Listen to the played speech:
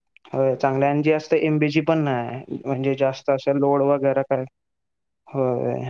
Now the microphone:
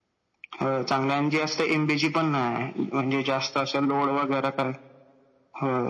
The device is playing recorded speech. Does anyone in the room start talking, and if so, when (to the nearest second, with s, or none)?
none